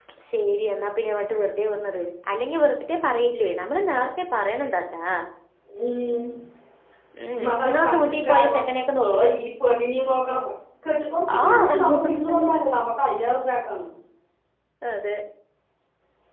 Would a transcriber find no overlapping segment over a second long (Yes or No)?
No